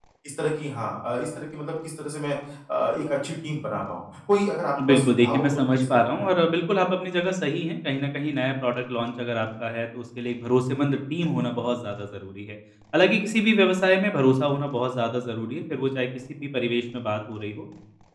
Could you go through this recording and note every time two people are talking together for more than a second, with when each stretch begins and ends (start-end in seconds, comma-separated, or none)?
4.8-6.3